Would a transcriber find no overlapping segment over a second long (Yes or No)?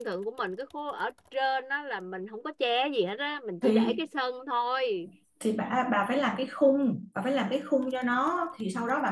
Yes